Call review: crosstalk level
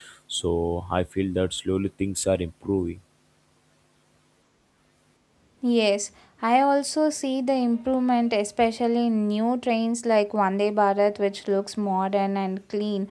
none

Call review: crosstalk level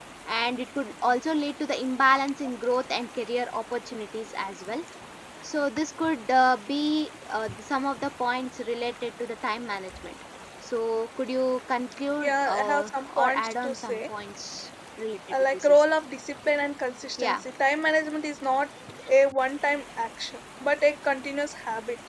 present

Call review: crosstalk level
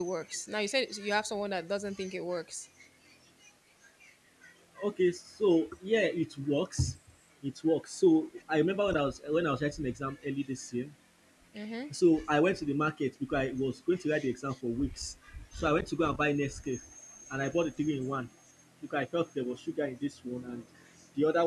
none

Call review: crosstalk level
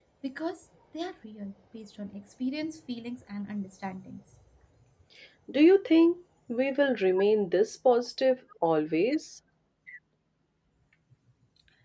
none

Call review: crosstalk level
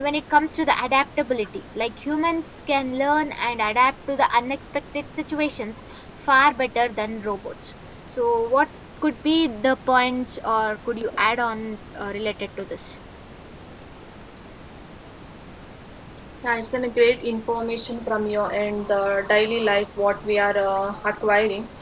none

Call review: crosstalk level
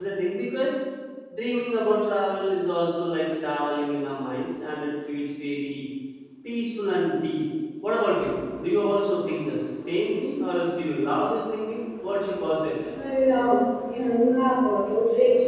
none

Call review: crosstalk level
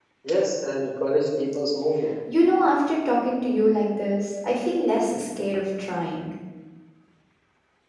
none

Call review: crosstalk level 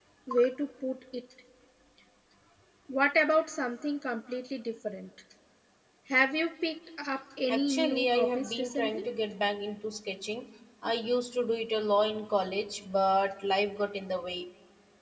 present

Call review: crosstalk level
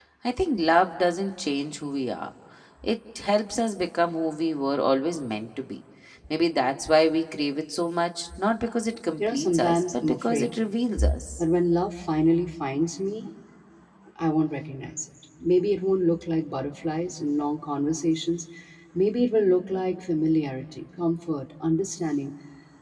present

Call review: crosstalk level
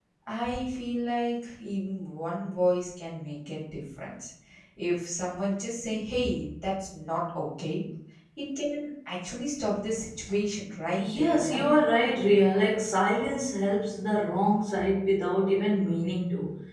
present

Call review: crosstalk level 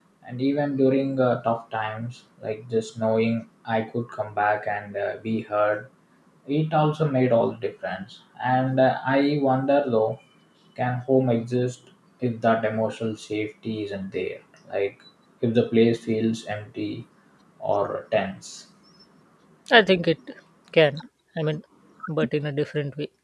none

